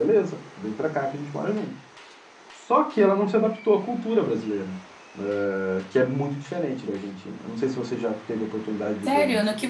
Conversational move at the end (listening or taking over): taking over